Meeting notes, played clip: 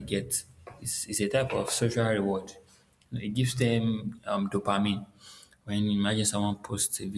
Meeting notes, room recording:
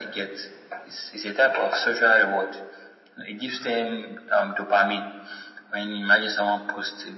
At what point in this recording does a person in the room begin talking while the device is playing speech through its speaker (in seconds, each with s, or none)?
none